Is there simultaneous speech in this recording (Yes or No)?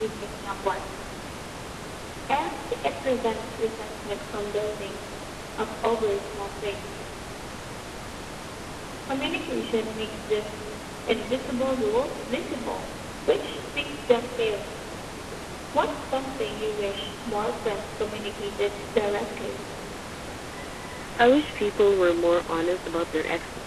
No